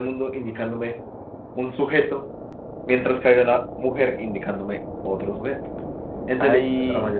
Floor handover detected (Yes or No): No